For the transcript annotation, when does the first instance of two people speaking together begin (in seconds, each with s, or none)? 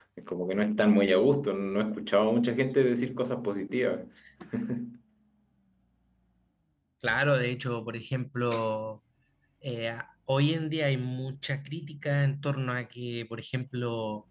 none